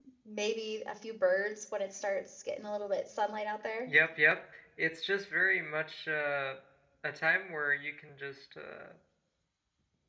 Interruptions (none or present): none